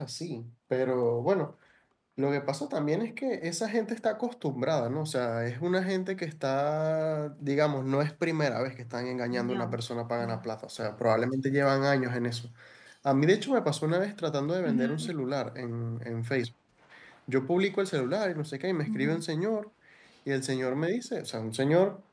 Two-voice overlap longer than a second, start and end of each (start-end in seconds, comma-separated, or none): none